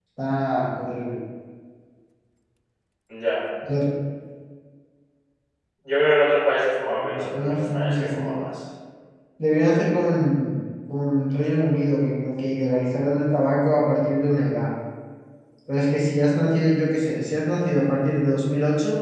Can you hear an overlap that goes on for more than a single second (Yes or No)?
Yes